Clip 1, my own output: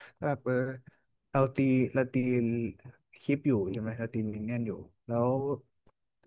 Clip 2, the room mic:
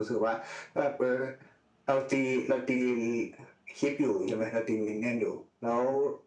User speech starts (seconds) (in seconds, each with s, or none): none